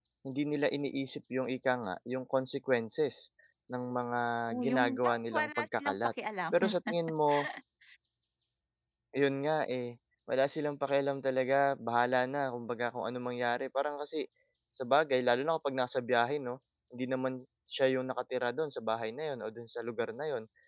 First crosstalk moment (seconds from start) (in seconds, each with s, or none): 4.6 s